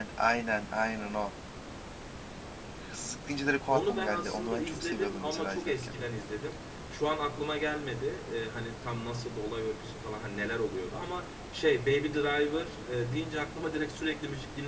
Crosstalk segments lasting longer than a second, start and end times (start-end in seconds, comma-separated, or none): 3.7-5.9